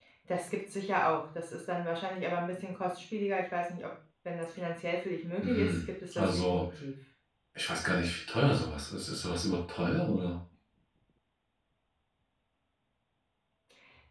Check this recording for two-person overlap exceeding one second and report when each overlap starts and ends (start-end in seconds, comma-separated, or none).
5.4-6.6